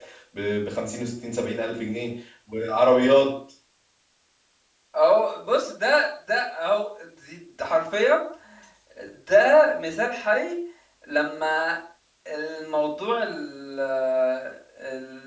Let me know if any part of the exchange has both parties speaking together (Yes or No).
No